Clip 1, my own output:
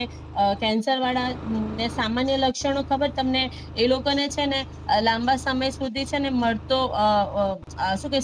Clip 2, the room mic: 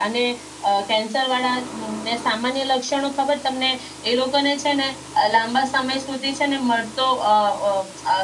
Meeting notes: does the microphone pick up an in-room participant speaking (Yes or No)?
No